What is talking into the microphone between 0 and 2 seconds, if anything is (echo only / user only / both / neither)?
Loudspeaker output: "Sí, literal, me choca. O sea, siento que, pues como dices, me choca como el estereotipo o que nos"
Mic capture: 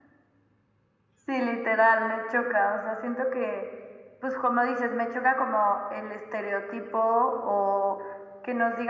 echo only